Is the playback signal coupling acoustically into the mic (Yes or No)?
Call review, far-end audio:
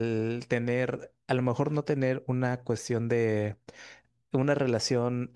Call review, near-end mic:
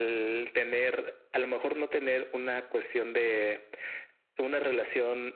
Yes